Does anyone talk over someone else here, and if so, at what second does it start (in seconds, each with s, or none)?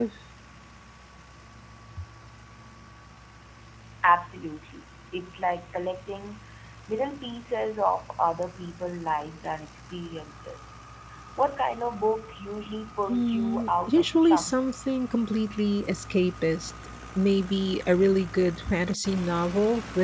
13.1 s